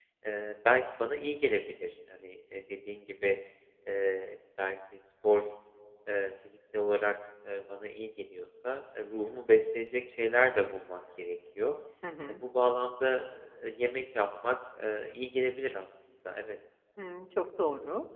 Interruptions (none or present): none